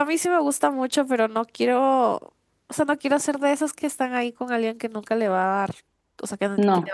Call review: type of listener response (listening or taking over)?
listening